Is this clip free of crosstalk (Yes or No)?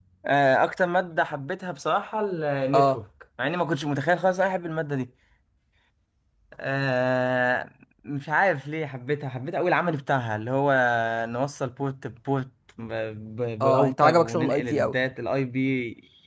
No